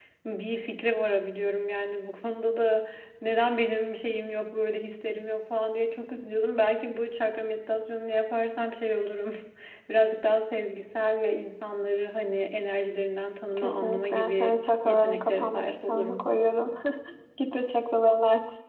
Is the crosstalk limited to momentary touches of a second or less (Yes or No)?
No